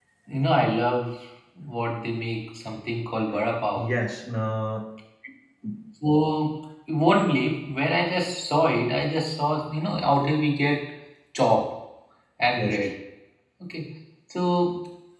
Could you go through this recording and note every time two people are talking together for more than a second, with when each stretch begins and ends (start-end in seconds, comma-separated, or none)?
none